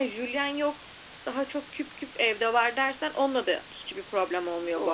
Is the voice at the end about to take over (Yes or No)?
Yes